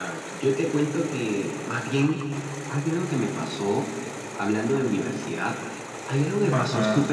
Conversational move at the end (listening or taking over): listening